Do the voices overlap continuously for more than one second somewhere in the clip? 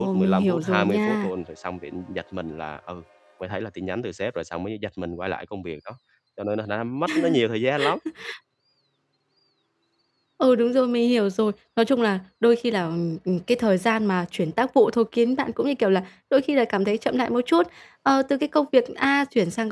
Yes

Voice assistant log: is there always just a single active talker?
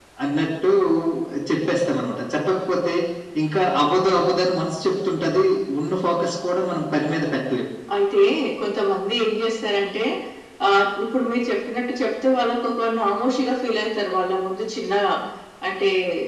Yes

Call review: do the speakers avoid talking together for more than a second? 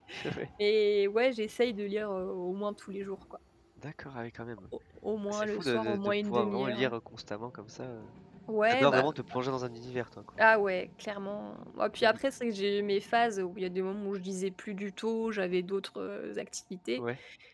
No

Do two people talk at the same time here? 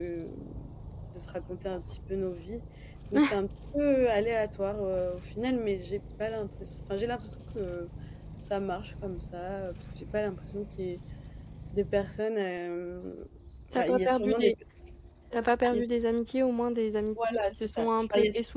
Yes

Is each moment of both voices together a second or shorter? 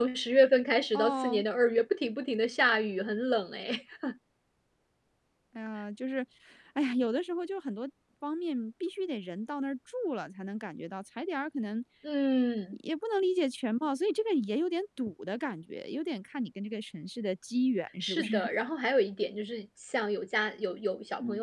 Yes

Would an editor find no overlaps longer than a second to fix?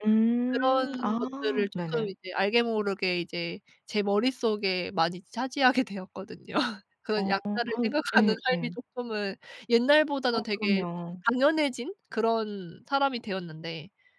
No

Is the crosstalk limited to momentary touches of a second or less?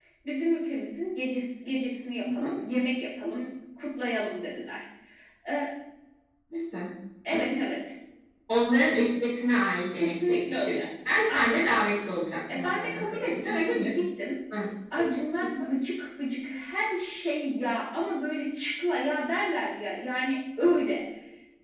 No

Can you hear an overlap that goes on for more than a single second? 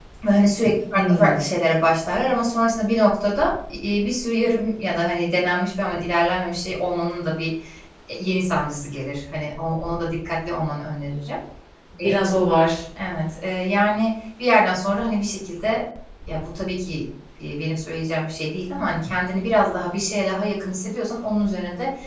No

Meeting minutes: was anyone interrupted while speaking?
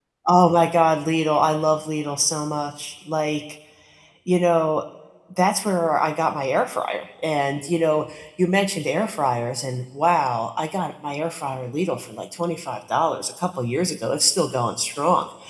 No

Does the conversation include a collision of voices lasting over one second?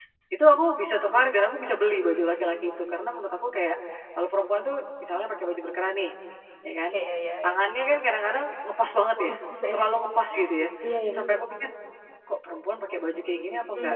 No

